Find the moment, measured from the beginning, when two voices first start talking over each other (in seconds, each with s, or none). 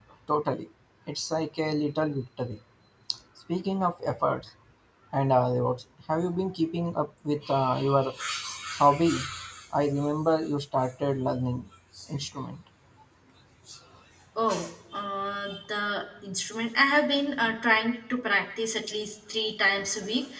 none